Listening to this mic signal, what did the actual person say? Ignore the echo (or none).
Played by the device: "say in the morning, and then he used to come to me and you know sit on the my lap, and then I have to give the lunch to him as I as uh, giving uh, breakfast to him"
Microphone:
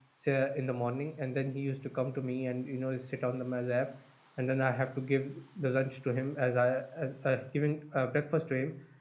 none